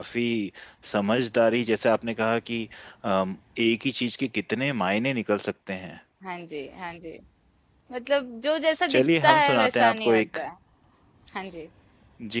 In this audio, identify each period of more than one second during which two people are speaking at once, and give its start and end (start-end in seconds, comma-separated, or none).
8.9-10.2